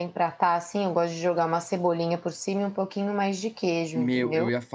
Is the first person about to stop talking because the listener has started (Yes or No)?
Yes